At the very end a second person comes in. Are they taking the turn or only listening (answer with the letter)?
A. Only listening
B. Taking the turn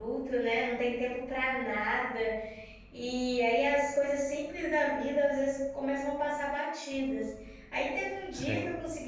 A